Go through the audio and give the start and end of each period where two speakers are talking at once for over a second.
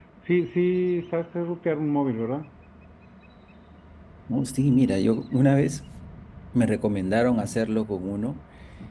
none

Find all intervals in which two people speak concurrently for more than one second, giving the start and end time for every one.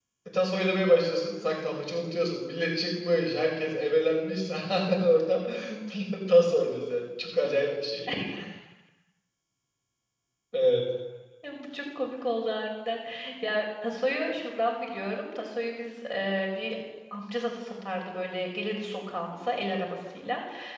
none

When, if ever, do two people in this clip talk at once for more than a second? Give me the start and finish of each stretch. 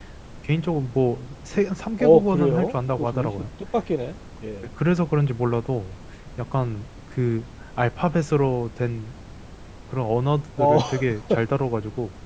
2.0-3.5

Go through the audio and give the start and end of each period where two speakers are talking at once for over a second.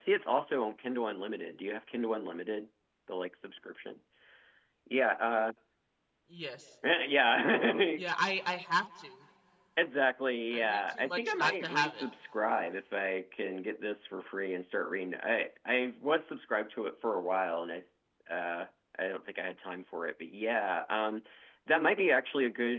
10.5-12.0

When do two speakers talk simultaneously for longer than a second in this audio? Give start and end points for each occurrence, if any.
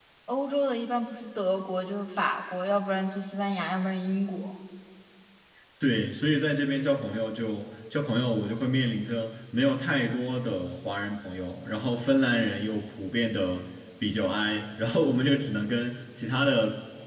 none

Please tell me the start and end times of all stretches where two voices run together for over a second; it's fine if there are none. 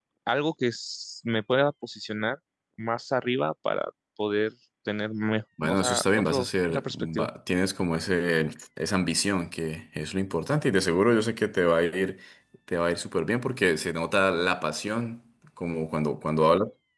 5.6-7.3

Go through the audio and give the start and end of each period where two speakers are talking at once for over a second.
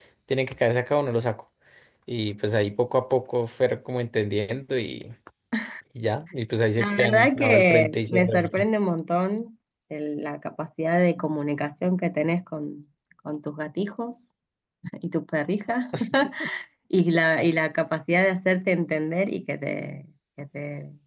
6.8-8.7

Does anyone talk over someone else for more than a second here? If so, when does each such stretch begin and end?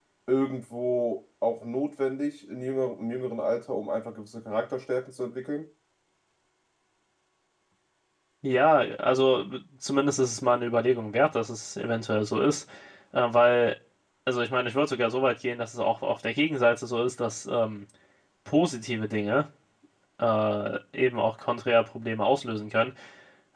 none

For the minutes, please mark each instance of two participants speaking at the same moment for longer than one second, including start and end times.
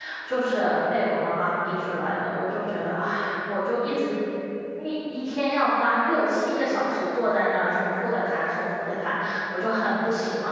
none

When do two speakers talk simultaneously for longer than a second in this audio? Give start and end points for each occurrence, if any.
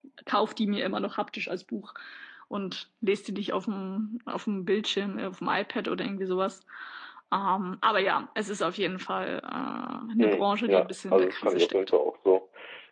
10.2-11.9

